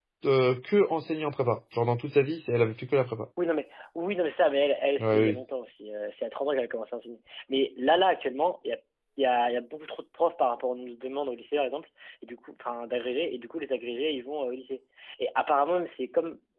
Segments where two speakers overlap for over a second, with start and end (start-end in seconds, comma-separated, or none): none